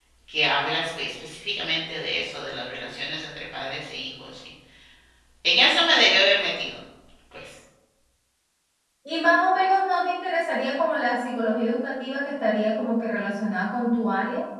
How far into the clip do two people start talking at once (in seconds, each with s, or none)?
none